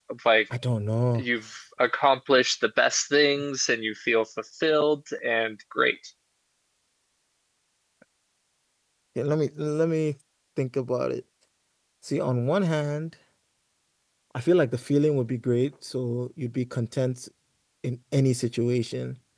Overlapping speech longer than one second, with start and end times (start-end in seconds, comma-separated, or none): none